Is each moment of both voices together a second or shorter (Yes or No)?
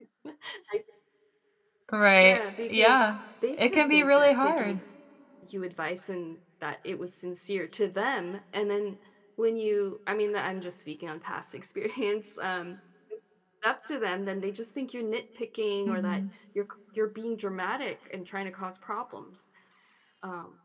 No